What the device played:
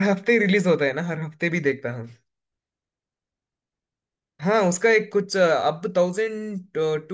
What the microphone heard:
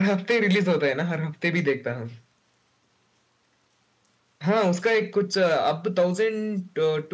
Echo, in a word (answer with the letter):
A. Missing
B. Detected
B